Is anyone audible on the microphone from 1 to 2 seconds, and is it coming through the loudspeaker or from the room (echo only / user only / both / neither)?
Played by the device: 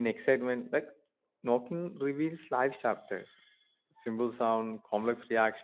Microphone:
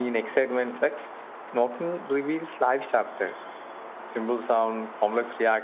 echo only